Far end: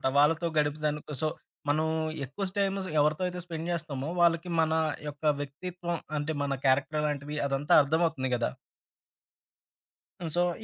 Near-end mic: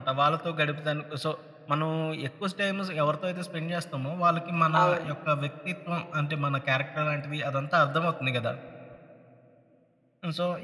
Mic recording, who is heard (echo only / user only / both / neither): both